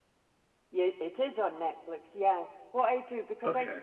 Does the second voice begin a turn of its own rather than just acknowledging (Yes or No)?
No